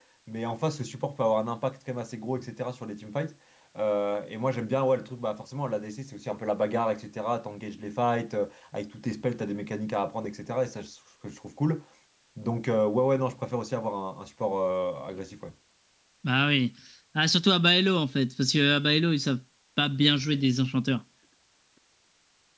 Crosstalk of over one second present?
No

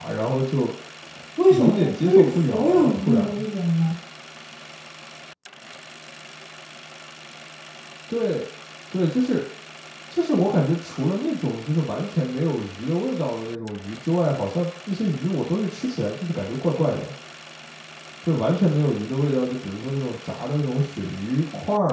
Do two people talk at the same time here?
Yes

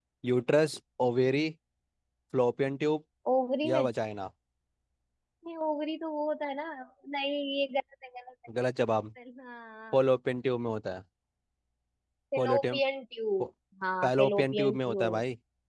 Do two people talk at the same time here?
Yes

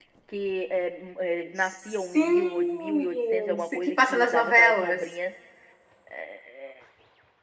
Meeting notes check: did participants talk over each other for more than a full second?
Yes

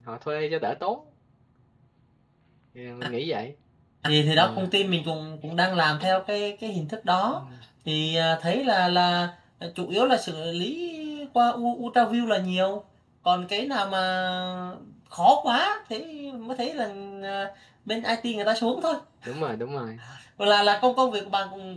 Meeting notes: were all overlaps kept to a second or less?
Yes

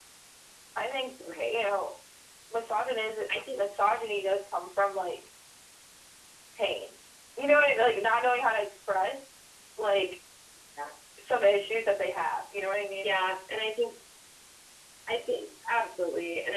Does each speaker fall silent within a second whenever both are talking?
Yes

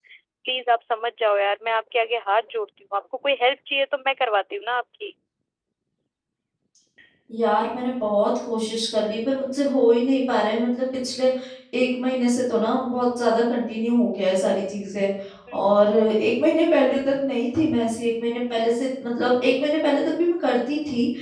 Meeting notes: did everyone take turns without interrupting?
Yes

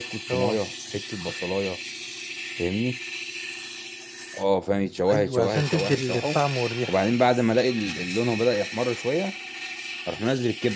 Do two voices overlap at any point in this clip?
Yes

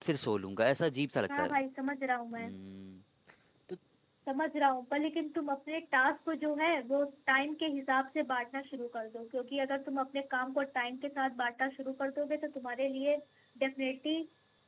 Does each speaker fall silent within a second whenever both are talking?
Yes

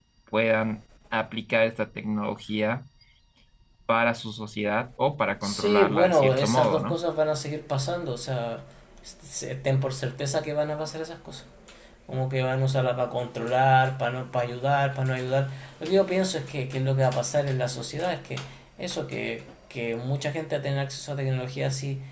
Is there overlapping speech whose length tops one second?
Yes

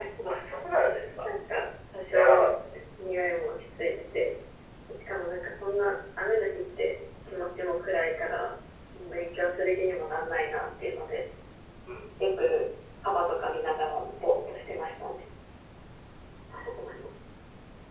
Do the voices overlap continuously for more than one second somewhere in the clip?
No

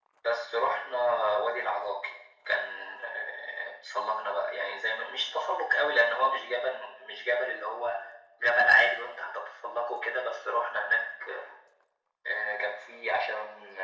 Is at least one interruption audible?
No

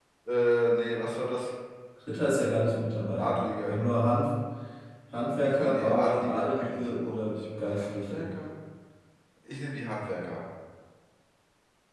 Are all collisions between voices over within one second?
No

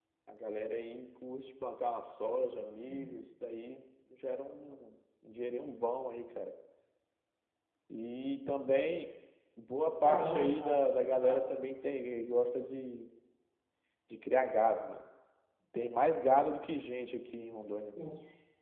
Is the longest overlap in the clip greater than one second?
Yes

